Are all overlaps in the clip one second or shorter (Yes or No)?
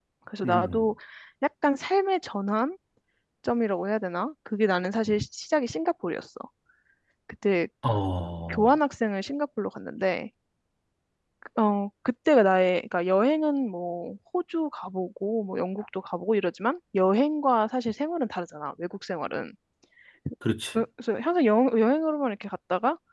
Yes